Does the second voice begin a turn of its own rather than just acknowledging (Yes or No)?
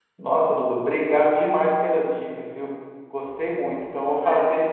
No